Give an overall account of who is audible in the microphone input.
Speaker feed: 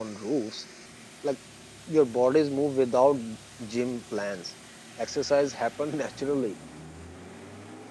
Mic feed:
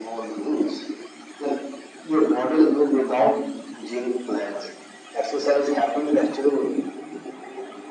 echo only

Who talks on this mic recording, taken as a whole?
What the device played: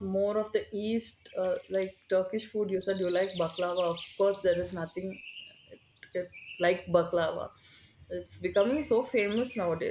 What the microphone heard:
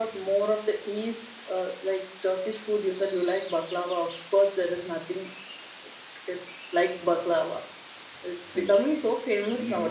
both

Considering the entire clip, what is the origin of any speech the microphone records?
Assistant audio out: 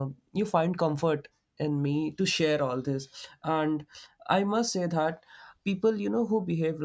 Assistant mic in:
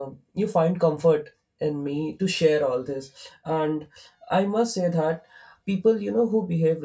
echo only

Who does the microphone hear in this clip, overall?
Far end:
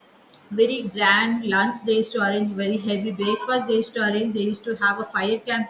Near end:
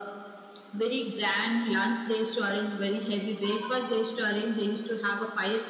echo only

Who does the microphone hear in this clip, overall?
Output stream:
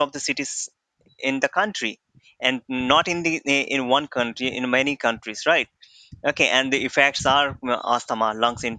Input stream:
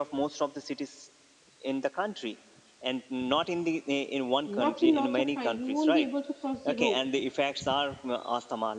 both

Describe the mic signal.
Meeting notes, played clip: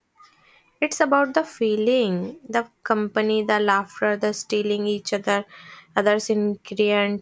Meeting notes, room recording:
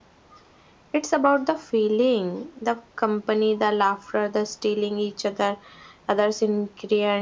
echo only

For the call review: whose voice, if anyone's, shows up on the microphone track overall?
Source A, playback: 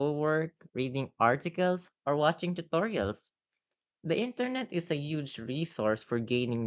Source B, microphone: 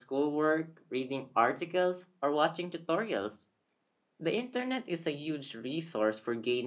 echo only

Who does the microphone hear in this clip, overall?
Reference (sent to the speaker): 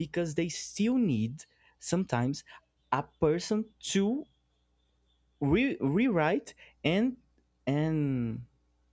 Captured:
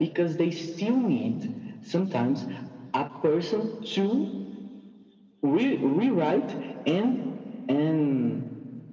echo only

